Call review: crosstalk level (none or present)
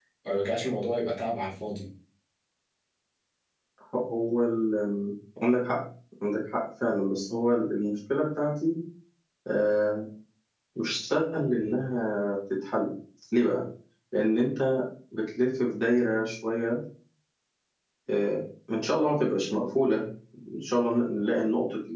none